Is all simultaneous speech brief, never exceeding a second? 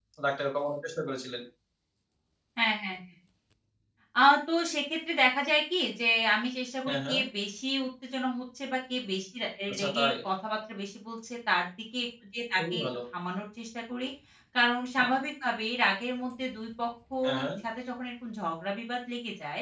Yes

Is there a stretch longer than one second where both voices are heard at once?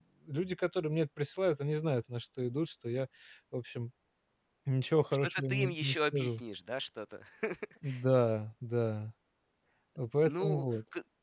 Yes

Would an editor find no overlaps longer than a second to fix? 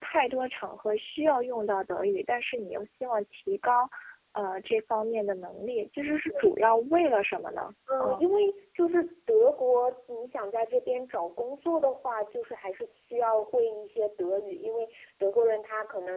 Yes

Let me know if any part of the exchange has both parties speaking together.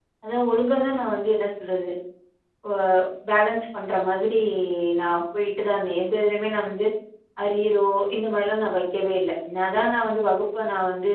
No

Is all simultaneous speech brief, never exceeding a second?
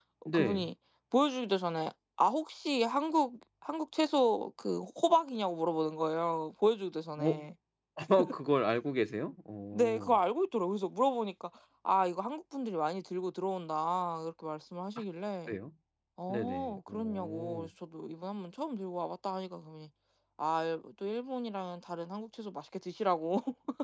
No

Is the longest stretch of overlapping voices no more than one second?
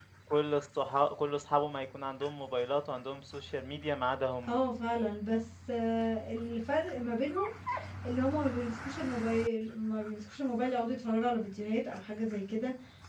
Yes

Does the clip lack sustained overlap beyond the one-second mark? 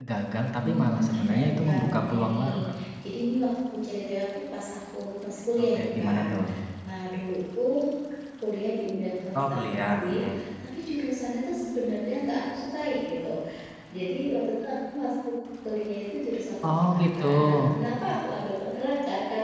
No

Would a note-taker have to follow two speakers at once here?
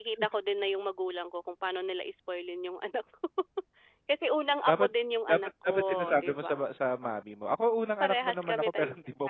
Yes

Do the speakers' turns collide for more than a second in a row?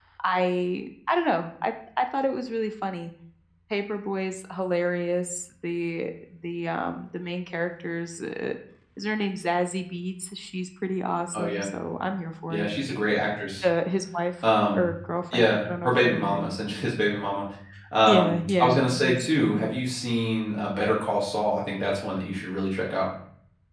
Yes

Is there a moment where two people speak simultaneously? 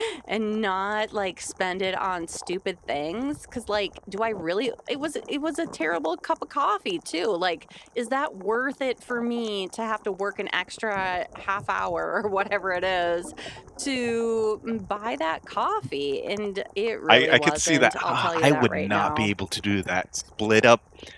Yes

